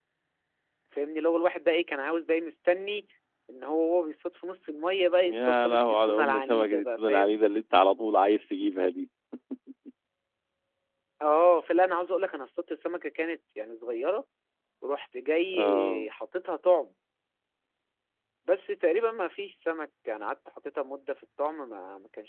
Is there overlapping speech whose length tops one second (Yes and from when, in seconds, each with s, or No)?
Yes, from 5.3 s